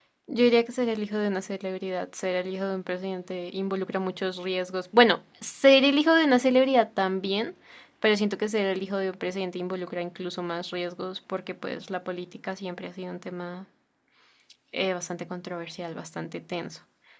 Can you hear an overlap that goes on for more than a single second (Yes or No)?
No